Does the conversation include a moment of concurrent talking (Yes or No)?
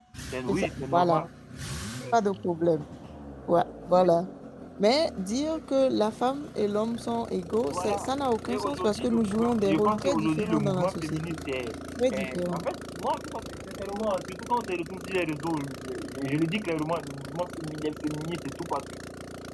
Yes